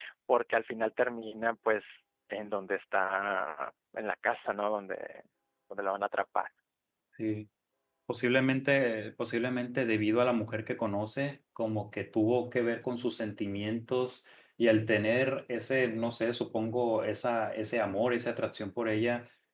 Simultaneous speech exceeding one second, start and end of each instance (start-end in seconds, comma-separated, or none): none